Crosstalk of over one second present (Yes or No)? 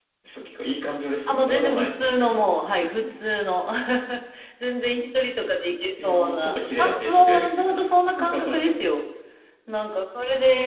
Yes